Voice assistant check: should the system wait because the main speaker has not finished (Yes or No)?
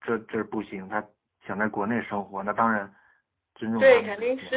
No